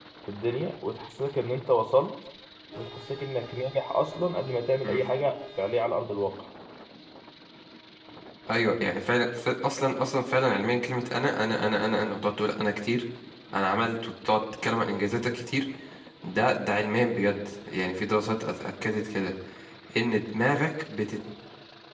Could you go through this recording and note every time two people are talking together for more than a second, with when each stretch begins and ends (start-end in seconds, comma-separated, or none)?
none